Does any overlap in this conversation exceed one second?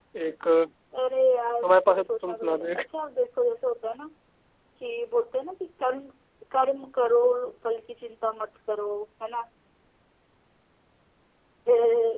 Yes, from 1.6 s

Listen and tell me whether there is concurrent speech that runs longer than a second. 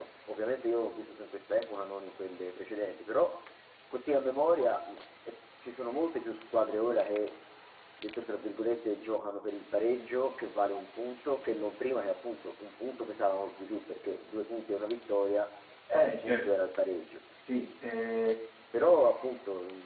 No

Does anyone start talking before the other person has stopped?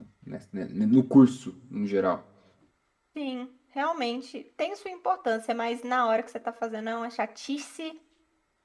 No

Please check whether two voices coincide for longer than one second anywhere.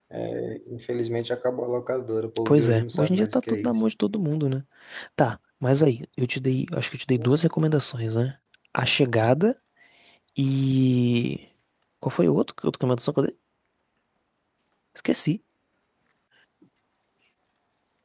Yes, from 2.5 s

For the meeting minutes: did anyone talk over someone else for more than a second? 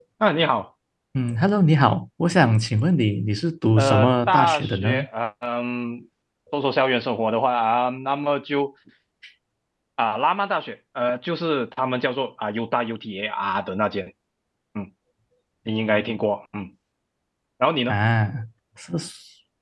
Yes, from 3.8 s

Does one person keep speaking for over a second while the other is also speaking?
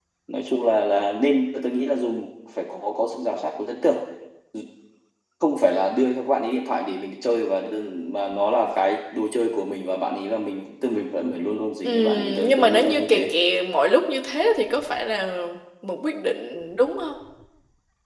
Yes, from 11.8 s

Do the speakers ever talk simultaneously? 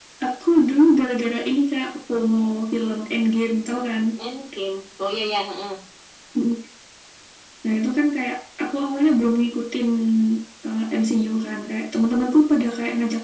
No

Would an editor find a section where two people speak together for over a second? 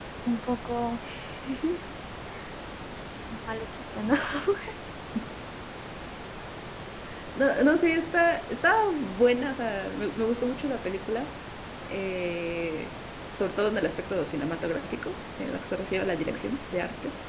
No

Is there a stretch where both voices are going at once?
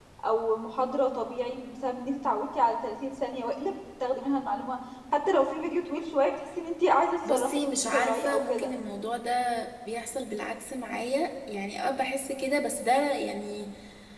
Yes, from 7.2 s

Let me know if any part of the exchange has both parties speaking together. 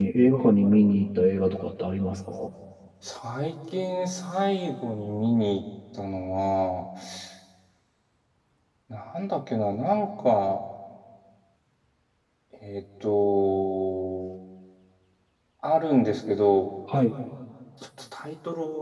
No

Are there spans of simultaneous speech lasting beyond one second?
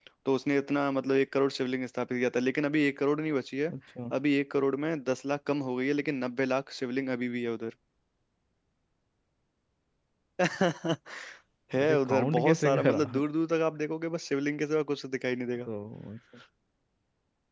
Yes, from 11.8 s

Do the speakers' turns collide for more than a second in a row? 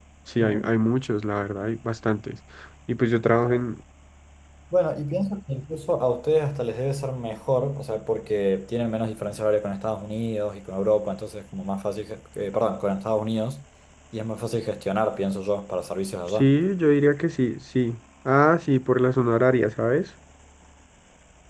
No

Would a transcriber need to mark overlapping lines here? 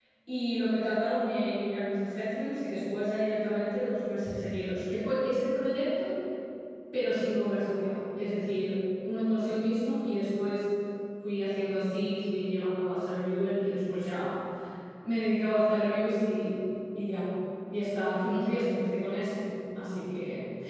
No

